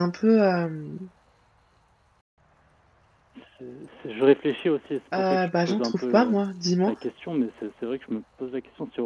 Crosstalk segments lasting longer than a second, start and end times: 5.2-6.3

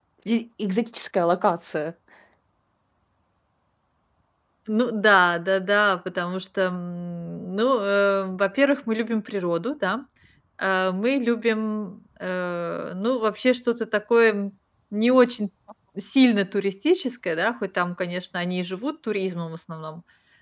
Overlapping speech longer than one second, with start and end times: none

